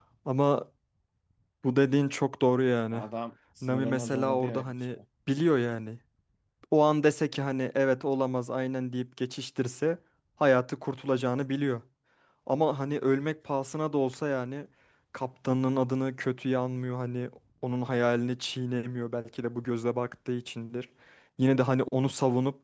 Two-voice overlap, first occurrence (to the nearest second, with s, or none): 4 s